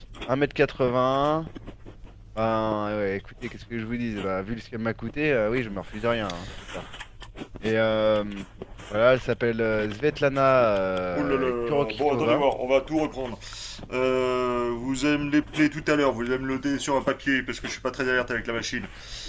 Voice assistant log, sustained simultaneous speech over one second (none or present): present